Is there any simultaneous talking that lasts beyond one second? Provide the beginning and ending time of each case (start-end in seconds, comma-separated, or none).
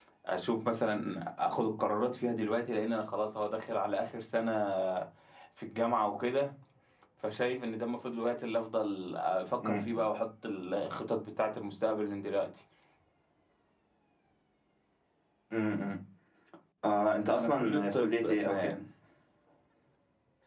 17.3-18.8